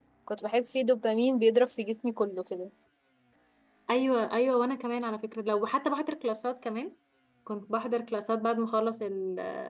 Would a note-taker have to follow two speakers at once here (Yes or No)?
No